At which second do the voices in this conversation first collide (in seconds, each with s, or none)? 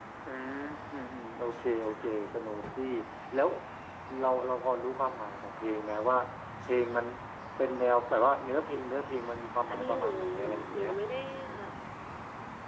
9.7 s